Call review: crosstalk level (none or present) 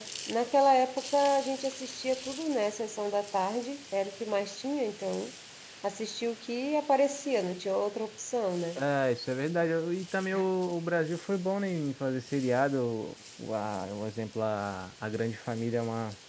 none